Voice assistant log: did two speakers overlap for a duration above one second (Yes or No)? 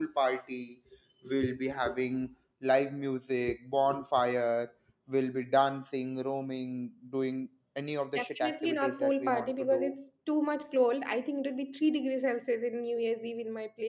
Yes